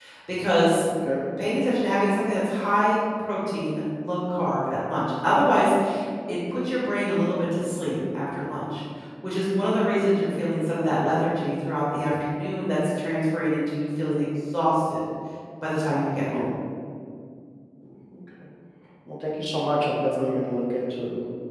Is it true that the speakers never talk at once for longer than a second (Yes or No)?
Yes